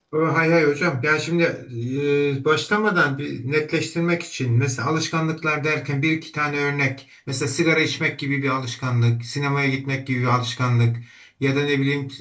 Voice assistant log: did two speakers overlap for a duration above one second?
No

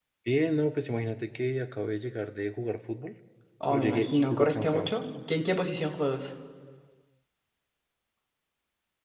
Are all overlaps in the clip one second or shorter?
No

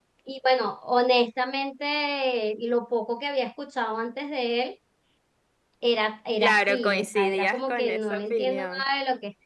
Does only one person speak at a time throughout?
No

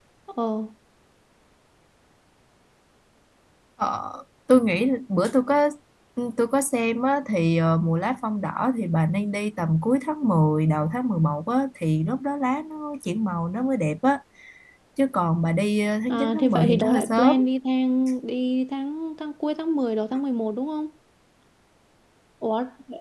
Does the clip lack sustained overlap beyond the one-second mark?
No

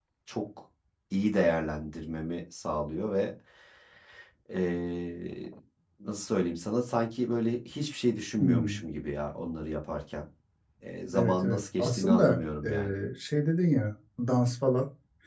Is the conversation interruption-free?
No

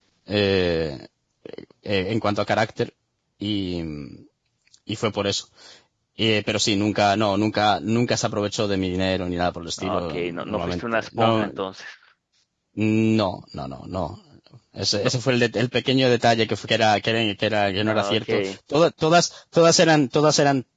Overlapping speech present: Yes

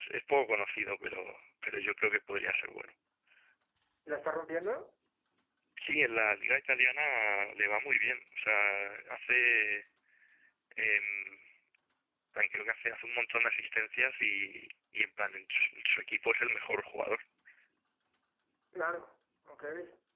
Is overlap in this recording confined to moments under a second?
Yes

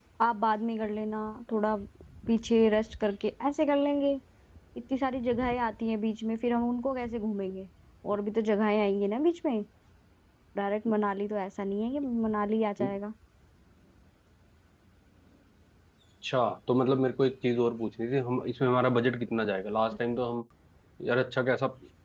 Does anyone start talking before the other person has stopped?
No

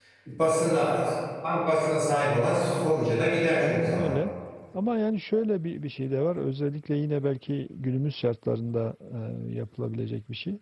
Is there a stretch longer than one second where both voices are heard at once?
No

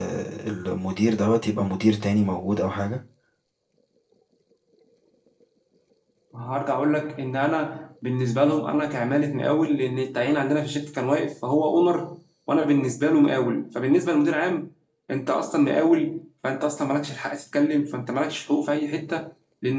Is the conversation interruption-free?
Yes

